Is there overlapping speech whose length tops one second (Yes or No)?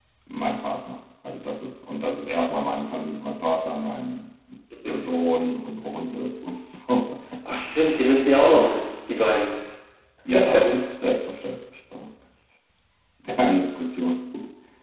No